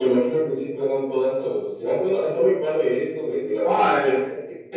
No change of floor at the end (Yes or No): No